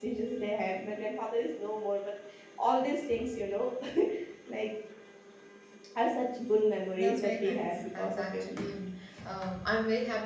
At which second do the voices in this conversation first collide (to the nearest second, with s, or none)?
7 s